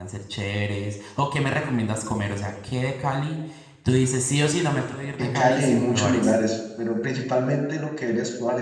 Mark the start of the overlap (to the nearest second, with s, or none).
5 s